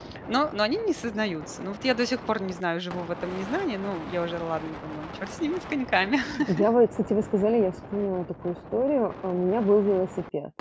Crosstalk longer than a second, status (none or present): none